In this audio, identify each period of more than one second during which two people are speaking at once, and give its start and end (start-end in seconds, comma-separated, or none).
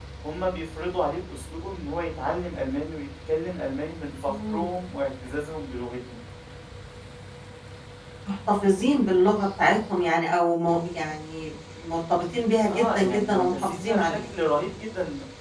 12.7-14.2